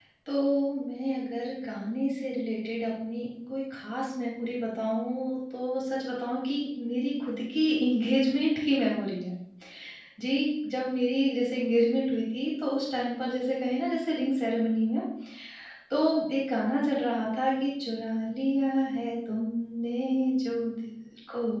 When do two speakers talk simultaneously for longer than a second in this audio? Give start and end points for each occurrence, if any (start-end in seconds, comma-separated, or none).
none